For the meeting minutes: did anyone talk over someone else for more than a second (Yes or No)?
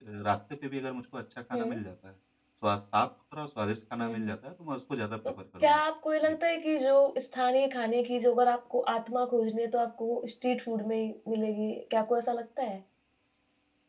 No